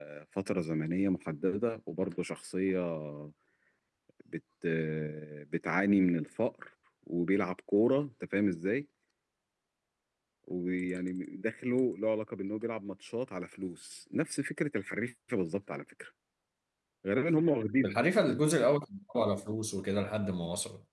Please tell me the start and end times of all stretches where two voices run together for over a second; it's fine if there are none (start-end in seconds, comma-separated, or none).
none